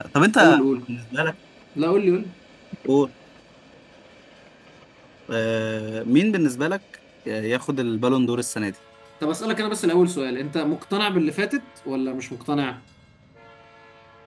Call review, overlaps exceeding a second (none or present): none